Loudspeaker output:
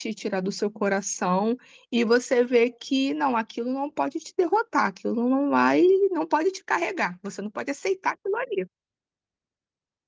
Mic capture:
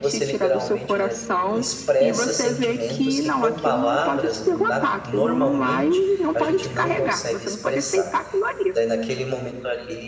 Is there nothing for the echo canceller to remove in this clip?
No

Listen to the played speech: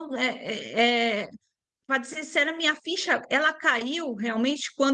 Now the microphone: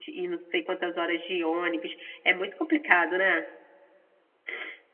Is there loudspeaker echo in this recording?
No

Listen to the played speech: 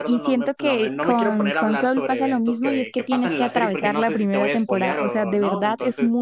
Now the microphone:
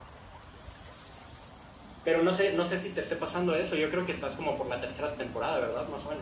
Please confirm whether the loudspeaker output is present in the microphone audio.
No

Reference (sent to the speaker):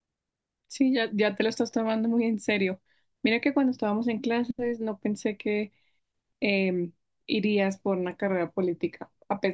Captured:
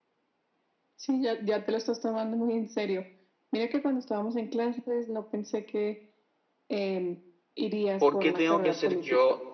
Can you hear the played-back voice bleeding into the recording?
Yes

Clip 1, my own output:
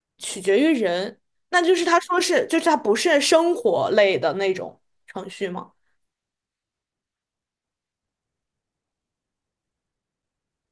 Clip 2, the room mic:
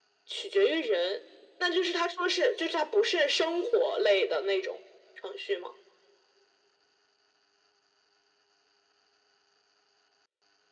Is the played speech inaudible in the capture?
No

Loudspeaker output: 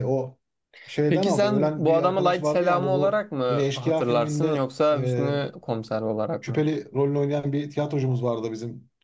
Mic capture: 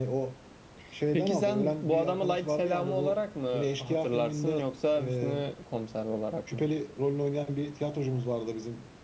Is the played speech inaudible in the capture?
No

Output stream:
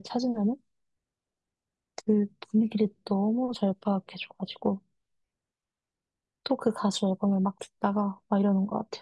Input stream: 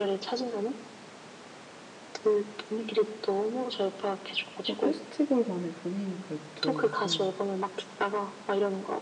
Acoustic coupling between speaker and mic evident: Yes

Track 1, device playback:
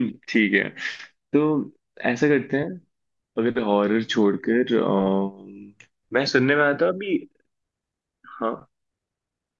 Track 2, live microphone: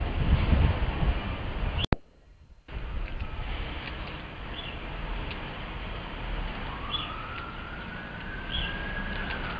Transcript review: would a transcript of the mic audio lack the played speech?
Yes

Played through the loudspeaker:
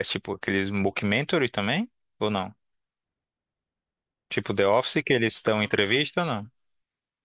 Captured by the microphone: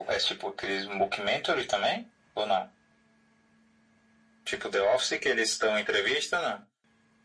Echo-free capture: No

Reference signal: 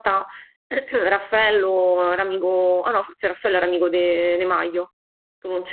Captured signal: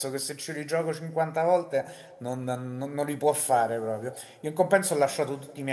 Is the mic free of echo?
Yes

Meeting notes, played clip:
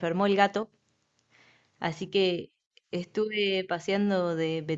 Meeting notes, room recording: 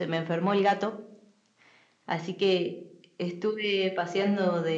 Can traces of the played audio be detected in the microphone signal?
Yes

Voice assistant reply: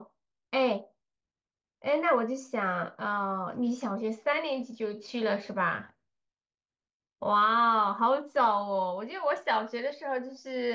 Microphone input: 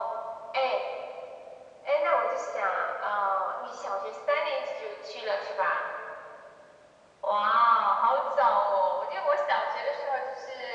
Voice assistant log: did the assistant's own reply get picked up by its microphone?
Yes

